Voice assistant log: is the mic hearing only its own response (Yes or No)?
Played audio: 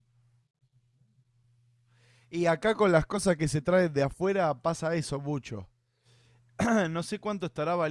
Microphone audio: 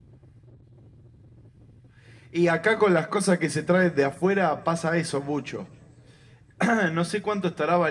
Yes